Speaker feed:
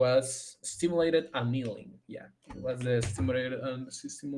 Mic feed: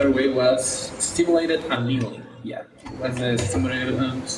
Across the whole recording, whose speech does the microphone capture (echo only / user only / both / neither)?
echo only